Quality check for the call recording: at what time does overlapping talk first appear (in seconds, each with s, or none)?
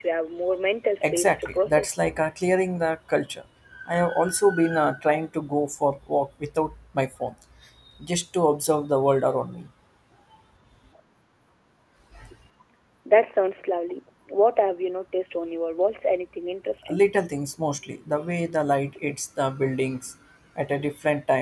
1.0 s